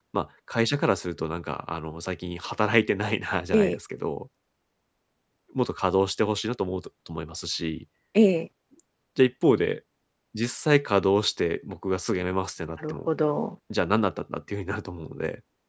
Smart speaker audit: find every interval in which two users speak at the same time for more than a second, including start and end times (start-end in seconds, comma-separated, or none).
none